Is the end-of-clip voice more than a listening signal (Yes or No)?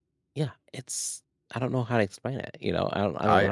Yes